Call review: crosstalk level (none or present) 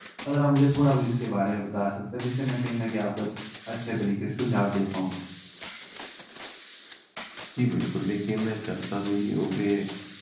none